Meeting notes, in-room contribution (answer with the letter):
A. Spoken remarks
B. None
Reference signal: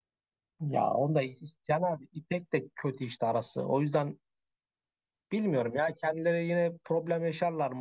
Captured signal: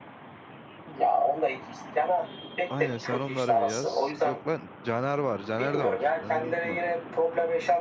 A